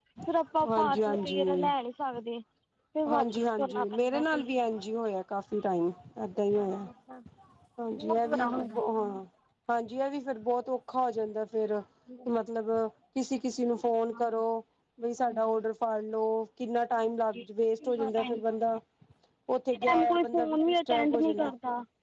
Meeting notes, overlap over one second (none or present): present